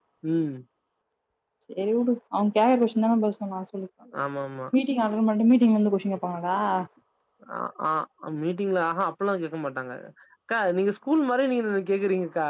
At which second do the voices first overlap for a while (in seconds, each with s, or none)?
none